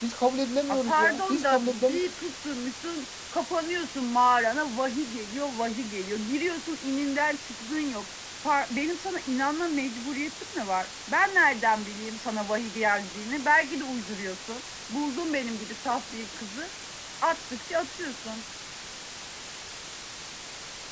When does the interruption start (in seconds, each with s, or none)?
0.7 s